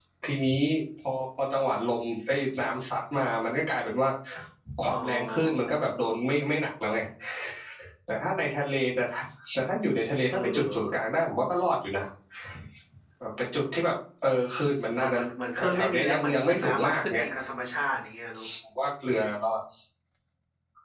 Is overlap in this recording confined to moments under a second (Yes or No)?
No